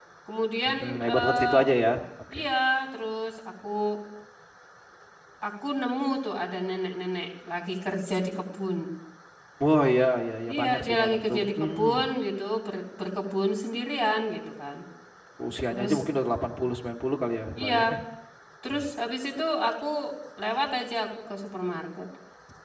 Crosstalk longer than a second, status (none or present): present